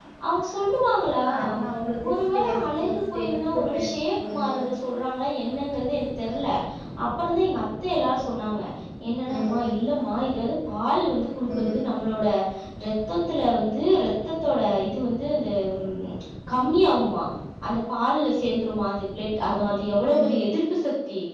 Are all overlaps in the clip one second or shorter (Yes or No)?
No